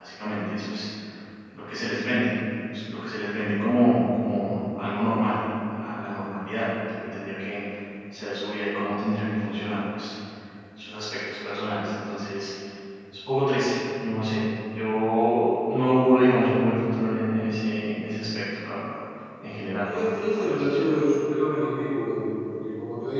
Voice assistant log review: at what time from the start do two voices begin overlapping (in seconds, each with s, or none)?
19.7 s